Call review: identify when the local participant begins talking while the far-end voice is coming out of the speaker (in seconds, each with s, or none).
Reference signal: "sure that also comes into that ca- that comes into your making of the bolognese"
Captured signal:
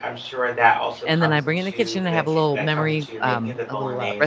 1.1 s